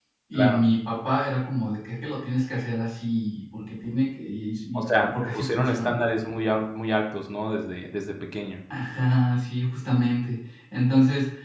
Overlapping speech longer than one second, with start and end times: 4.8-6.0

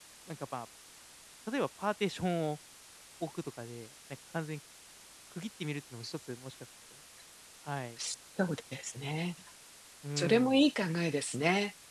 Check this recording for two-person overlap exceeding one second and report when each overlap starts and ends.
none

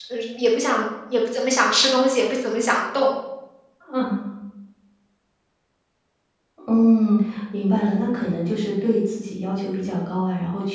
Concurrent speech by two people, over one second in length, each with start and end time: none

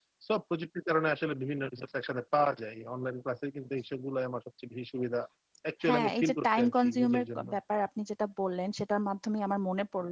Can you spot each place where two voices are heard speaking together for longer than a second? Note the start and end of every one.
5.9-7.5

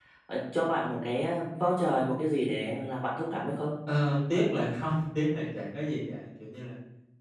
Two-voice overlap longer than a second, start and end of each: none

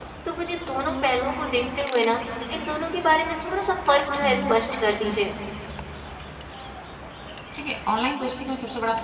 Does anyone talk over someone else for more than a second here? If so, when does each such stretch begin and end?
none

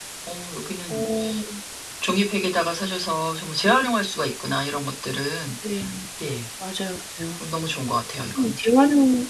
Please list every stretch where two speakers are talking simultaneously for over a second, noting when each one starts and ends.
none

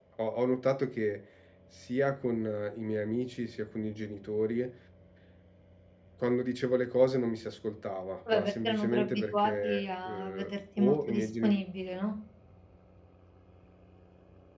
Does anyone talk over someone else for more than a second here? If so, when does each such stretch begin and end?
8.3-11.5

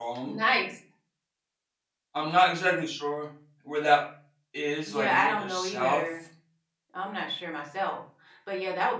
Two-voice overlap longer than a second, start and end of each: 4.8-6.2

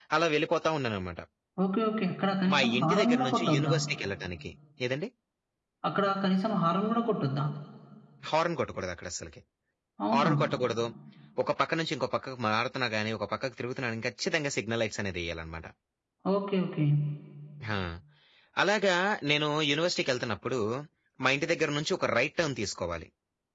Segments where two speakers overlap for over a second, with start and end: 2.5-3.7

